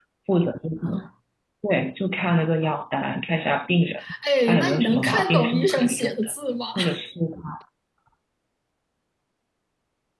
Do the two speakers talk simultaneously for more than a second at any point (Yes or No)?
Yes